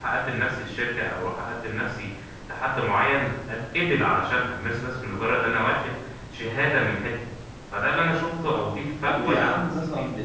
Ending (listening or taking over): taking over